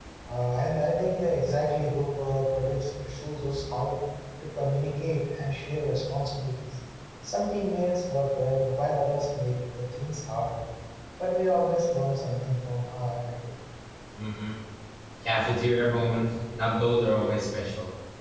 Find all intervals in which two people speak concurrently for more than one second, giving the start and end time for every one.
none

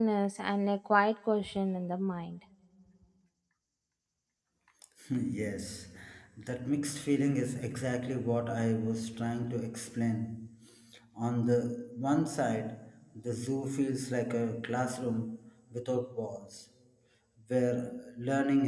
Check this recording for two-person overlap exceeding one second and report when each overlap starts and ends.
none

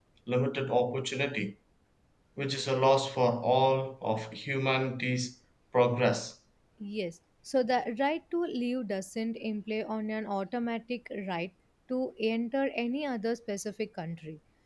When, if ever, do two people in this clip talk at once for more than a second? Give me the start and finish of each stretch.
none

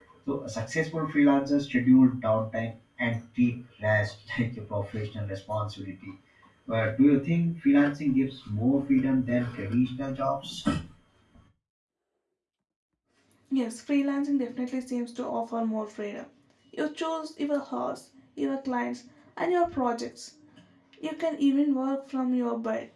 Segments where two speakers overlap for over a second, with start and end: none

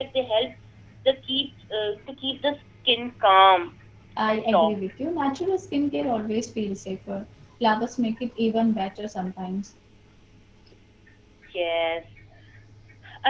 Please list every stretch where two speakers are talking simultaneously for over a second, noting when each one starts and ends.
none

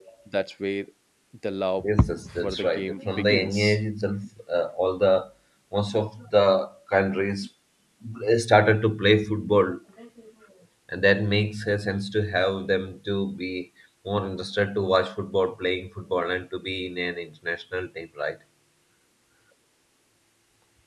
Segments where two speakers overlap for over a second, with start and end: 2.3-3.8

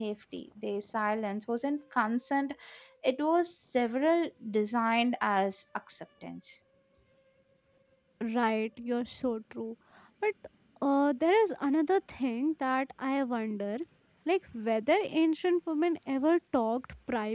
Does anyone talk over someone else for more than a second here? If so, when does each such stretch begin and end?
none

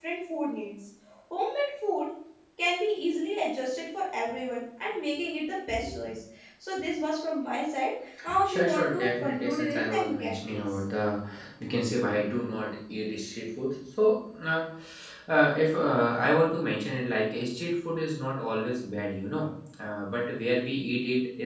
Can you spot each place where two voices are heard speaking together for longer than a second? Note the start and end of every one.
8.4-10.6

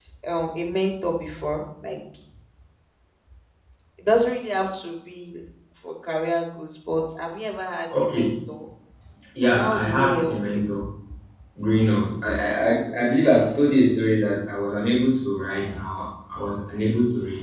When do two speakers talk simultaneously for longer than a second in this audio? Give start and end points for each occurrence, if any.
9.4-10.6

